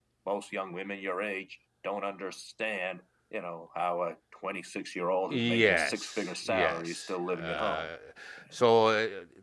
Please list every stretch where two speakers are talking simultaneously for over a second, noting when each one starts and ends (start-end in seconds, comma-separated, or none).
5.3-7.9